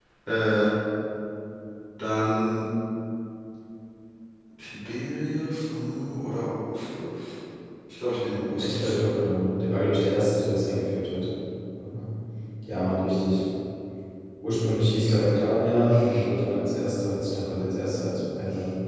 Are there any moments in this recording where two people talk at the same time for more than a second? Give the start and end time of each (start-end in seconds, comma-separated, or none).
none